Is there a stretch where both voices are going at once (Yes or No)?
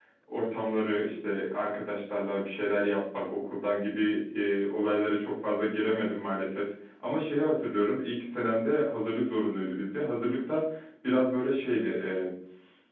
No